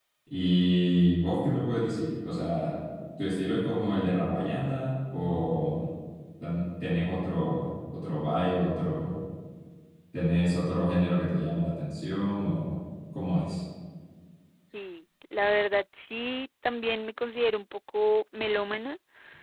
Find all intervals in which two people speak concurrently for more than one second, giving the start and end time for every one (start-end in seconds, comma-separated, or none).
none